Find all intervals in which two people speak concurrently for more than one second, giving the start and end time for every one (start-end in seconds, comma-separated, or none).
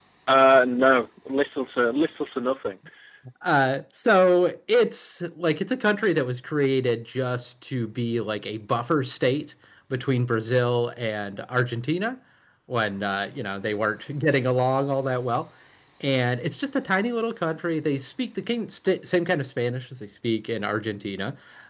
none